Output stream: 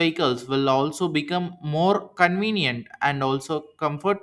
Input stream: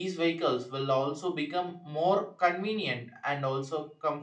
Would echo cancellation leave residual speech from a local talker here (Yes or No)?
No